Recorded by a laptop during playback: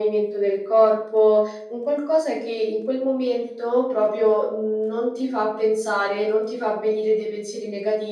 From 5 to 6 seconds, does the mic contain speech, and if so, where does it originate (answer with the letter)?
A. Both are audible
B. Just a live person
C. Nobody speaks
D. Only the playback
D